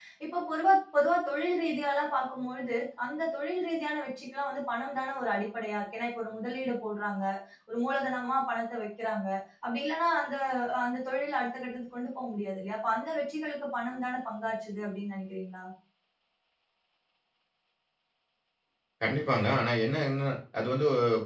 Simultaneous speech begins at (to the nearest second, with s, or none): none